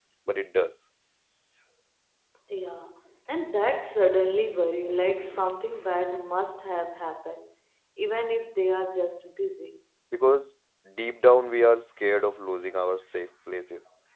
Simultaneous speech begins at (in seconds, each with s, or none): none